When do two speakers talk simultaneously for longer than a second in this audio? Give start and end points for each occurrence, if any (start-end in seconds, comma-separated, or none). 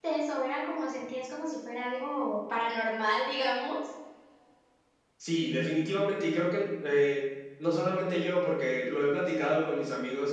none